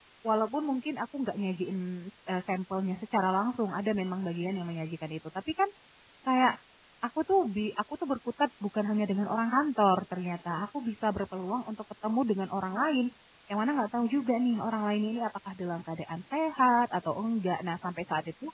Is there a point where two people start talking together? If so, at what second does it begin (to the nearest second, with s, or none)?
none